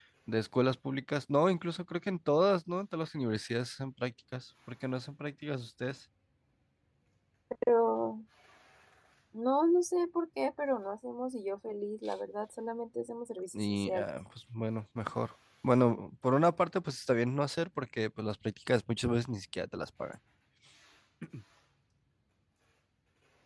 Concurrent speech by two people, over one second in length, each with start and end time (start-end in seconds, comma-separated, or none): none